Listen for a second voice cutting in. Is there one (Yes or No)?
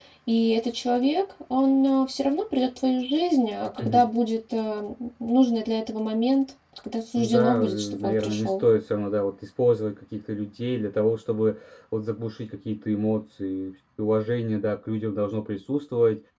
Yes